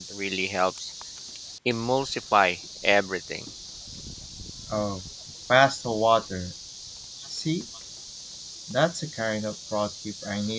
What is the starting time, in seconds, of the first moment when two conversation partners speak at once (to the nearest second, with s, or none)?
none